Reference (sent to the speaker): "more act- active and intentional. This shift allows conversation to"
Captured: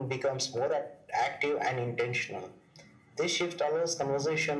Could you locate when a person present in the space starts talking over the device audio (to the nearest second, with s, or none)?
none